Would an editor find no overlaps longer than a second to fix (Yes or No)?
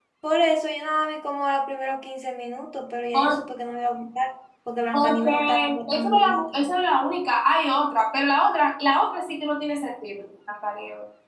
No